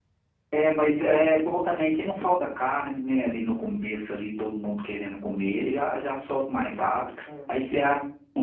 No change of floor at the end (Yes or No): Yes